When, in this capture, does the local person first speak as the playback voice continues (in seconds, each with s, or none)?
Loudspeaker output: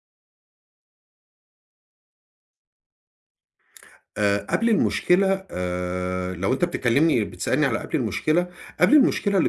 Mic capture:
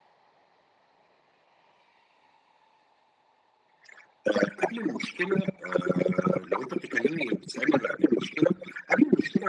none